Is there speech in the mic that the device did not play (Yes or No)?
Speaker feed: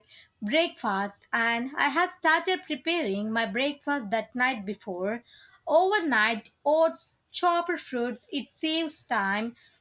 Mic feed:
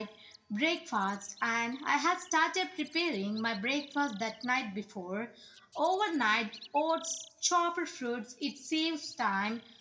No